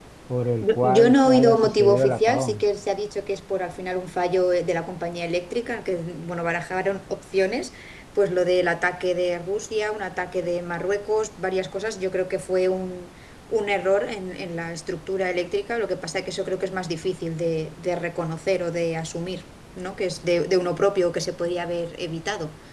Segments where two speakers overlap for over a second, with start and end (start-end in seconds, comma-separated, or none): 0.6-2.6